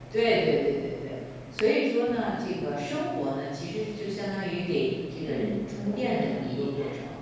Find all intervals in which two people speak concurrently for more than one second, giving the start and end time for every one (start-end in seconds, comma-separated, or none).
5.2-6.7